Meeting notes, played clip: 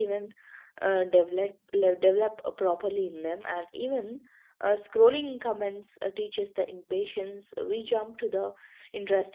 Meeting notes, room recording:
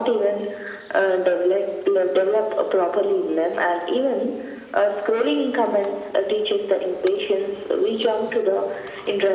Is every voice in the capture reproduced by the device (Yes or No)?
Yes